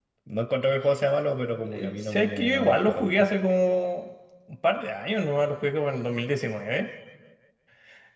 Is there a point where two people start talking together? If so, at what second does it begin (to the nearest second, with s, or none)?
2 s